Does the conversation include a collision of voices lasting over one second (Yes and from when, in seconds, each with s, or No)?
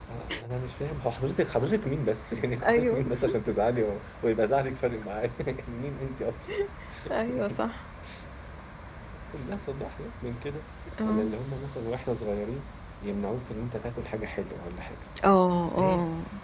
No